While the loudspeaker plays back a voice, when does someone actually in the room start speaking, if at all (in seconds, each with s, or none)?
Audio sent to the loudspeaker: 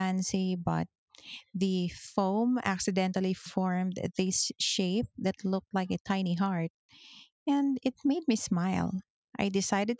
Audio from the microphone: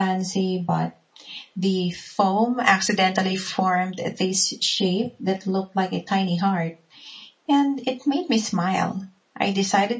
none